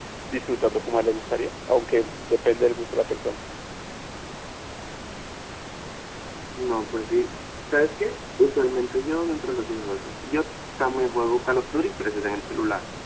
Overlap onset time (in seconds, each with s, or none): none